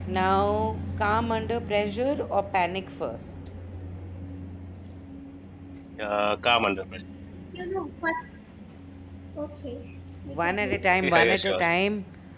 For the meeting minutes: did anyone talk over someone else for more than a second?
Yes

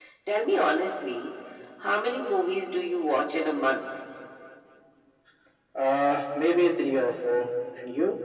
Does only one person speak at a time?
Yes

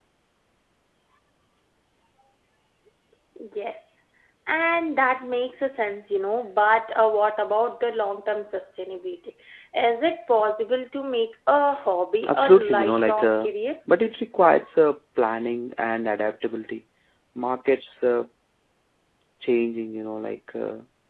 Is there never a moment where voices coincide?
No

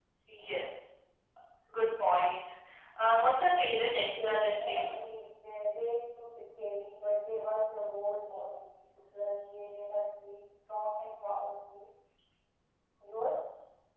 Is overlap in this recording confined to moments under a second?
No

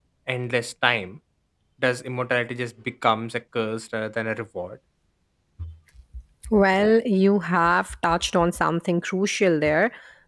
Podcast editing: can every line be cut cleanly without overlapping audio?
Yes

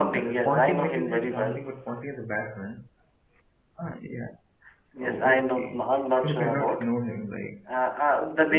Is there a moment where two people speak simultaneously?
Yes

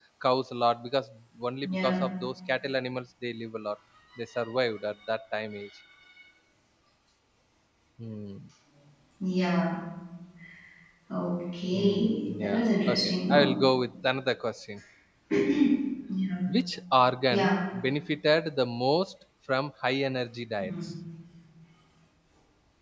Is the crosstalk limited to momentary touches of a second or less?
No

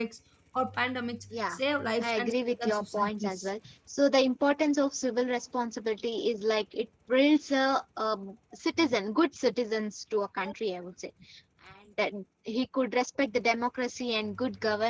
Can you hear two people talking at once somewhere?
Yes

